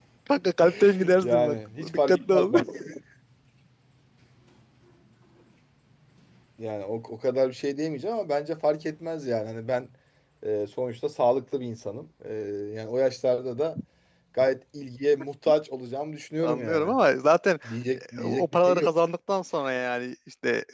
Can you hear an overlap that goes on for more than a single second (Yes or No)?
Yes